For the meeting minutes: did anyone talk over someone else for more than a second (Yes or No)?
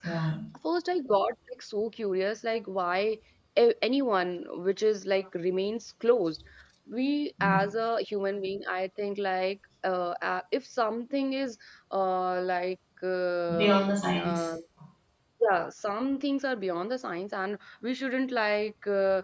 No